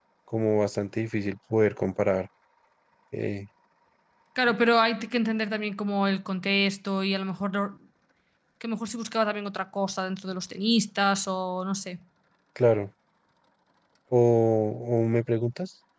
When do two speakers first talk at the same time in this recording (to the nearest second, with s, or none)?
none